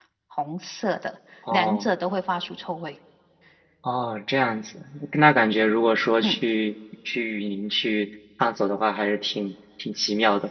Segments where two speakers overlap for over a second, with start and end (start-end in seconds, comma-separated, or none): none